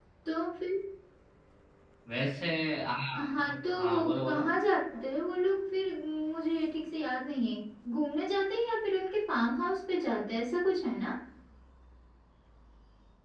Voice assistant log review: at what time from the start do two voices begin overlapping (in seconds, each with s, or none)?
3.2 s